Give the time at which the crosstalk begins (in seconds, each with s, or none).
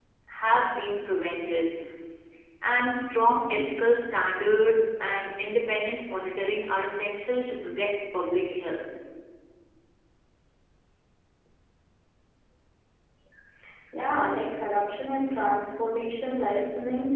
none